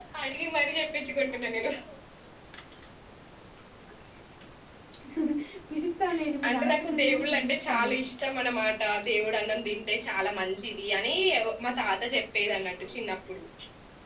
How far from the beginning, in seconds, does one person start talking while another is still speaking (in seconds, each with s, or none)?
6.5 s